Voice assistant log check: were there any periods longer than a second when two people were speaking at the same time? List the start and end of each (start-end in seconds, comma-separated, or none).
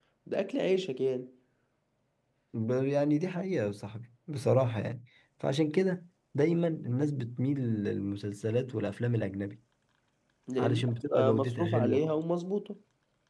10.6-12.1